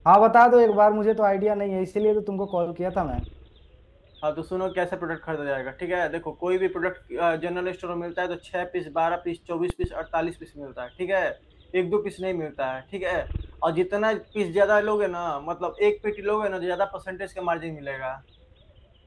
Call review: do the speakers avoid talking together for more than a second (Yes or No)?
Yes